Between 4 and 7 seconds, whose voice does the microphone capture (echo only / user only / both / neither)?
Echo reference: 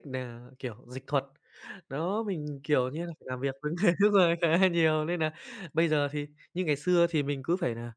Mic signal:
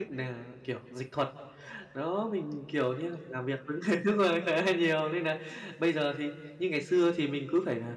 echo only